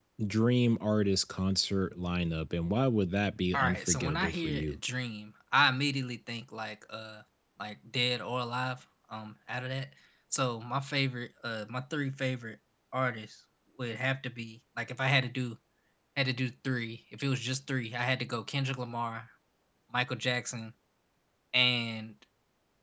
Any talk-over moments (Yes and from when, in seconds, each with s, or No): Yes, from 3.5 s